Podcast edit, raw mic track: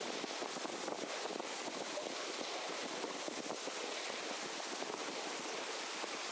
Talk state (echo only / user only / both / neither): neither